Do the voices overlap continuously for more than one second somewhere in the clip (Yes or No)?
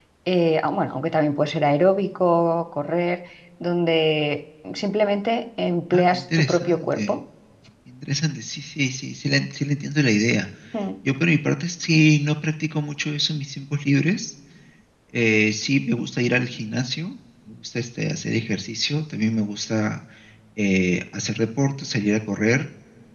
Yes